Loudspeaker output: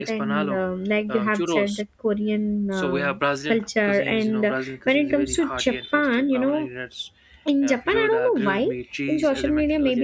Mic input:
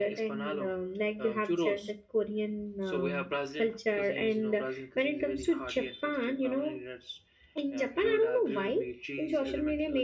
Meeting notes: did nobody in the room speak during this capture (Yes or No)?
Yes